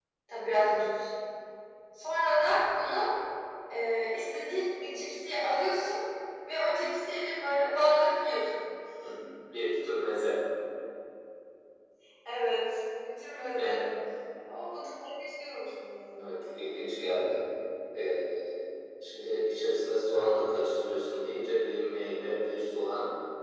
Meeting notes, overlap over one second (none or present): none